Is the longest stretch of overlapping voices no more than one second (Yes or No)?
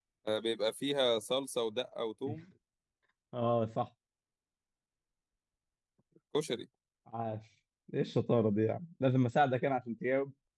Yes